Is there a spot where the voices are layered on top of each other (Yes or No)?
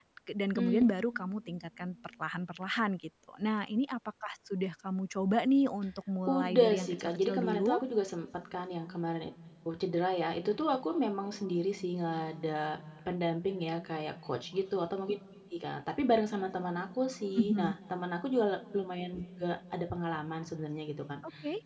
Yes